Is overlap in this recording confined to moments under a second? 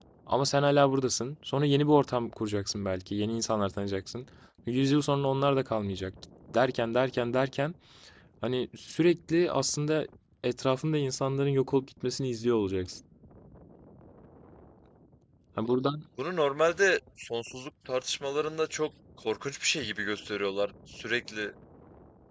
Yes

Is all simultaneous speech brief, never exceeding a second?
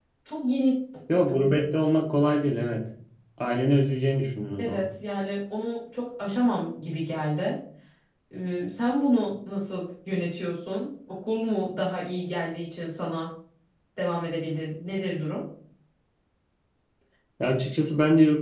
Yes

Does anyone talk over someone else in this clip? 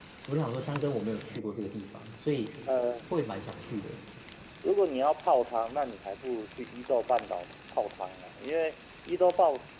No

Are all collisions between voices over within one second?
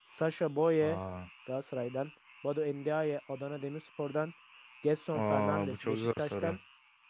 No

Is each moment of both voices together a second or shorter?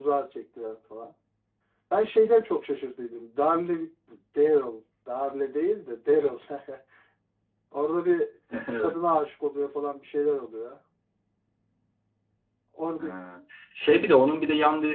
Yes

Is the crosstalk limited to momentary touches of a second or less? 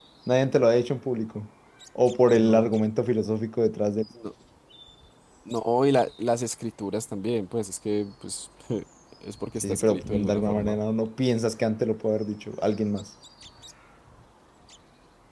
No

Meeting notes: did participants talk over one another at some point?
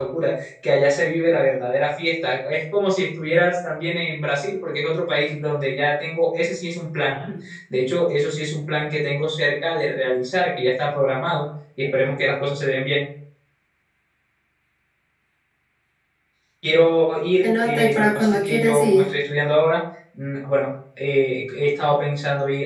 Yes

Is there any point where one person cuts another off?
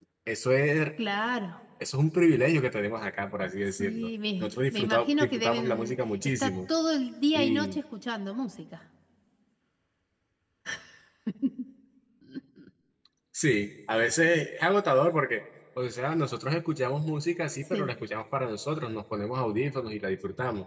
Yes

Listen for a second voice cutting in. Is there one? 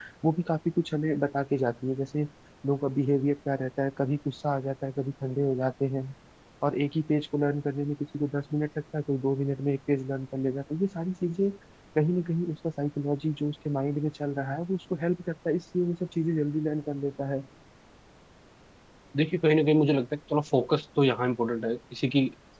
No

